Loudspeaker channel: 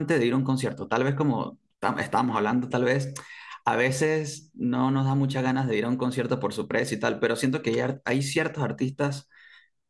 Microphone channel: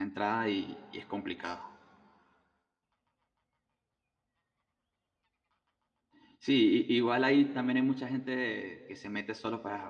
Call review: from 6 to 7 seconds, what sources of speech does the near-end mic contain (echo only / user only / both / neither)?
user only